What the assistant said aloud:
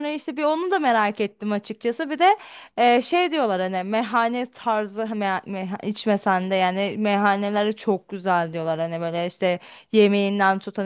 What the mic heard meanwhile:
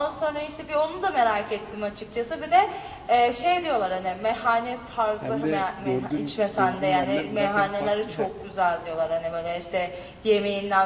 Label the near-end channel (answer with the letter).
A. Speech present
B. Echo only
A